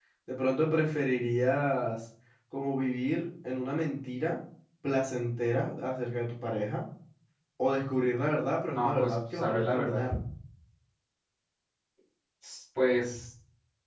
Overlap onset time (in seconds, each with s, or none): 8.7 s